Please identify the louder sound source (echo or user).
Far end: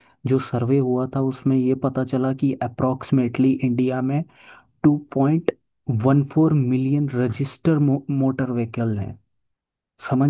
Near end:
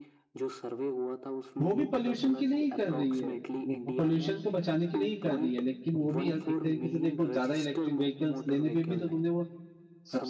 user